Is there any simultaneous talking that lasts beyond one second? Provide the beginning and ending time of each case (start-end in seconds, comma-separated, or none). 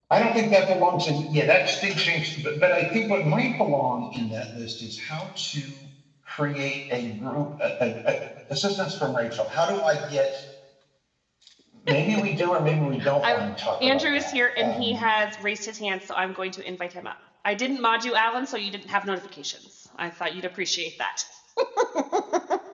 13.8-15.1